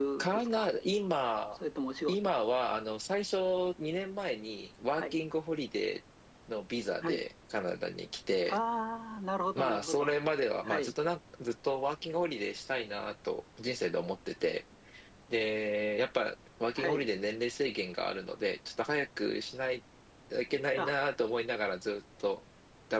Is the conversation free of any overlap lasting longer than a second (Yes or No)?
Yes